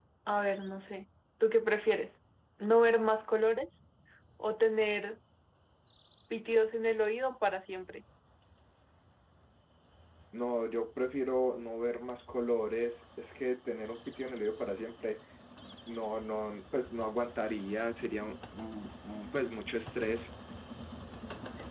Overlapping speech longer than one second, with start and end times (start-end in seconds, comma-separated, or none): none